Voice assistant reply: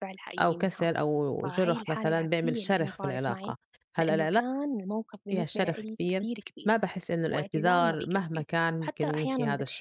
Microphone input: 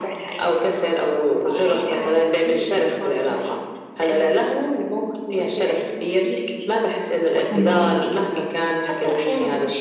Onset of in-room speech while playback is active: 7 s

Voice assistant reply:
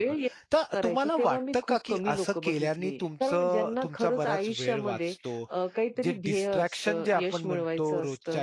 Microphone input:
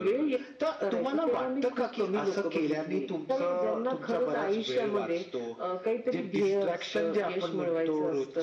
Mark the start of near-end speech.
none

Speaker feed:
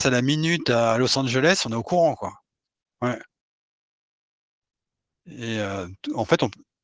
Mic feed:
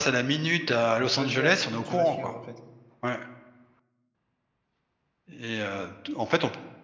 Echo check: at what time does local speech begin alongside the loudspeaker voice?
1 s

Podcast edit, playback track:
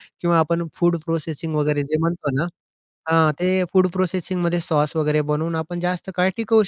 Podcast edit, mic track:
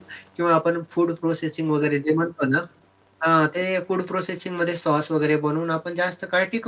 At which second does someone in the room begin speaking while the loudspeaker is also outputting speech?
none

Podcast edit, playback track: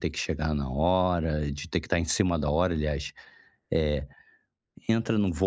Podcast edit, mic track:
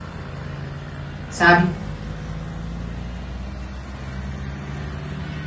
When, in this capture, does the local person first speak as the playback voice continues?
1 s

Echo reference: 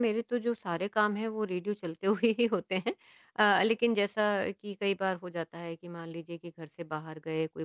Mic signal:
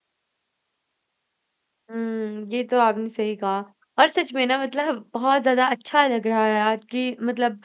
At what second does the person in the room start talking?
2 s

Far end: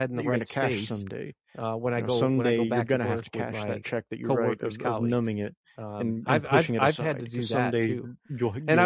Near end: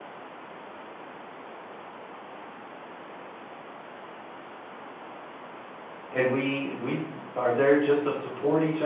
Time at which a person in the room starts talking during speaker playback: 6 s

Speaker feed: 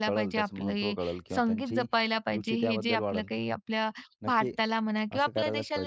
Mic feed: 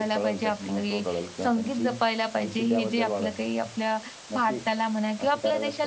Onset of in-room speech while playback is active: none

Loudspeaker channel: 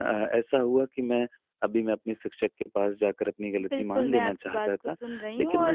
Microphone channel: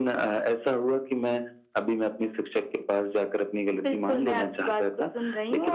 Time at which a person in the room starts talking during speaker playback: none

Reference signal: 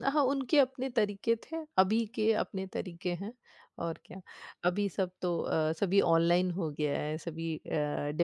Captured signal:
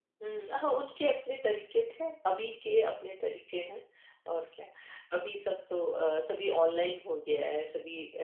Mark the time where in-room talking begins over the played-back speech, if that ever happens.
none

